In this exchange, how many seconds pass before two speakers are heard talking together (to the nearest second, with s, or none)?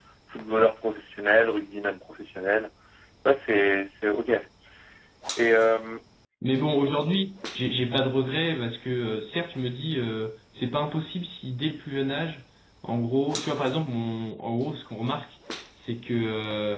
none